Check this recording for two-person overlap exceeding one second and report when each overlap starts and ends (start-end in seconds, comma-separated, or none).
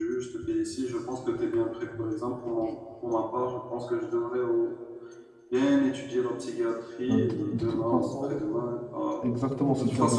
7.1-8.4